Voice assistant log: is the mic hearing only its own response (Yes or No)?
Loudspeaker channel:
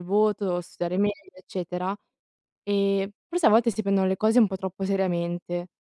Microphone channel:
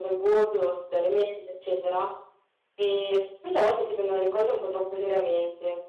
Yes